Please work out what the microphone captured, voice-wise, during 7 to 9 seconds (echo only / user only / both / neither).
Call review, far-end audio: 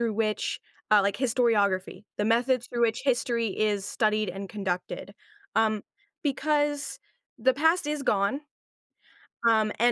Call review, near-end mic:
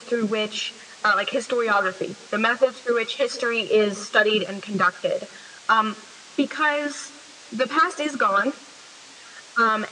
echo only